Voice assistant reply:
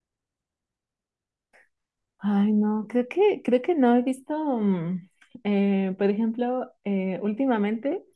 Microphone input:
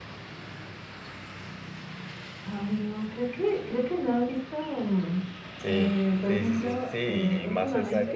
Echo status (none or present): present